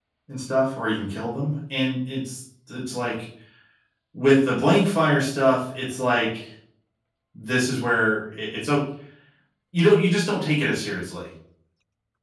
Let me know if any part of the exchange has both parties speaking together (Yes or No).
No